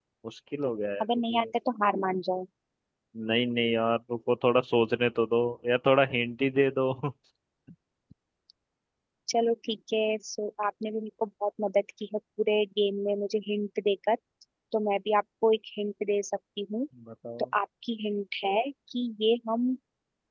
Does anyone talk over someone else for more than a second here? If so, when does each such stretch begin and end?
none

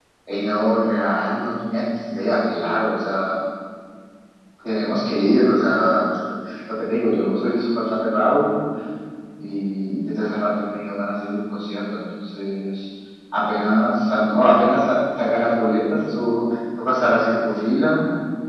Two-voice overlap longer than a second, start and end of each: none

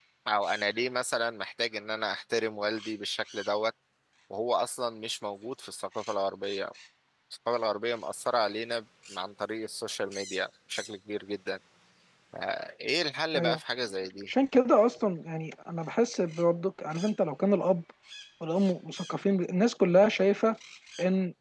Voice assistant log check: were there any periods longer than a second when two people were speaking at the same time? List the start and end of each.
none

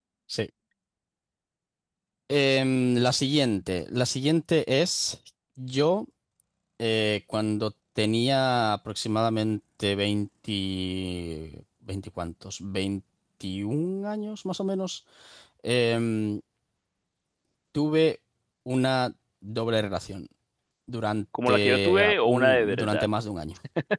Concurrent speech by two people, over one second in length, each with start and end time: 21.5-23.1

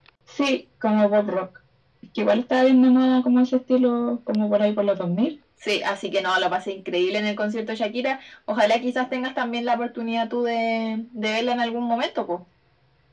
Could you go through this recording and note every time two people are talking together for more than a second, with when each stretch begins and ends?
none

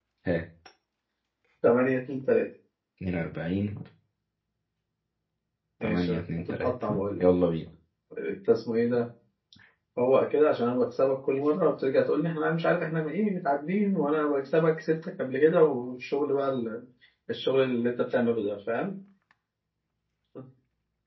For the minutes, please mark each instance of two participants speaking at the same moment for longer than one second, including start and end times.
5.8-7.2

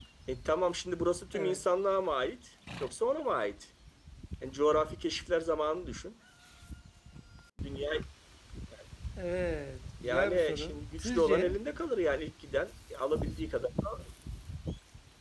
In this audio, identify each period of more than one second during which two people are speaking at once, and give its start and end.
10.0-11.6

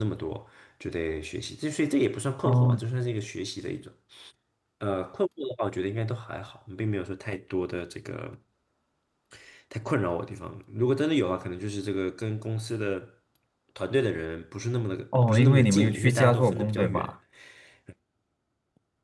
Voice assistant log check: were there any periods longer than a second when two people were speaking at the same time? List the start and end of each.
15.3-17.1

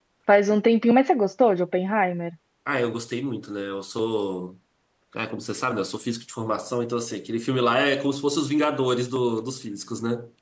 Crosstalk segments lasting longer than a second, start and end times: none

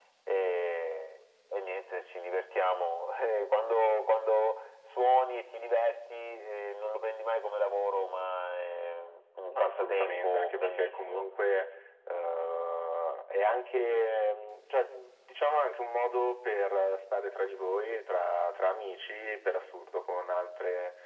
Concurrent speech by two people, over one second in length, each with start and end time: 9.5-11.2

